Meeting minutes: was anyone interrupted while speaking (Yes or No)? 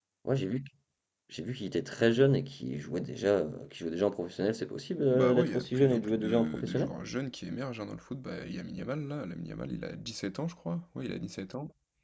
Yes